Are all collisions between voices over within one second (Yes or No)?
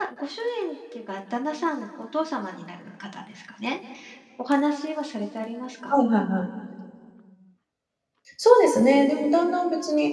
Yes